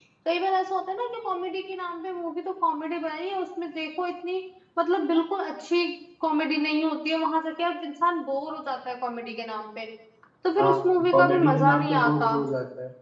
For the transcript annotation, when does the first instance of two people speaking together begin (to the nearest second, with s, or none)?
11 s